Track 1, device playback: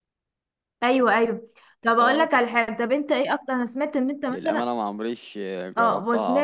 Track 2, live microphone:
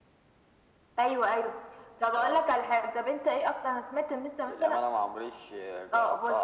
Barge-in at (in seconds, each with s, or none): none